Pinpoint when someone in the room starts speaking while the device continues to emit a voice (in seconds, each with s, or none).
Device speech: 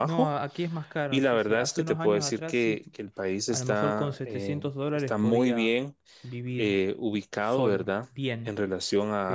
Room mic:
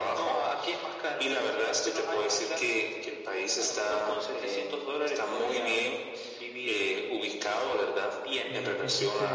8.4 s